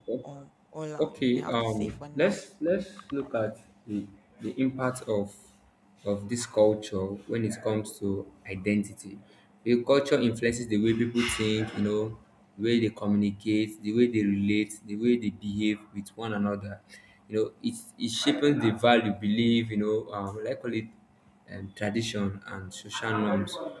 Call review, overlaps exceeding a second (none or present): present